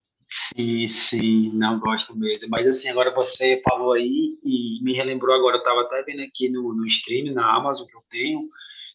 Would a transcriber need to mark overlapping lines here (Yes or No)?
No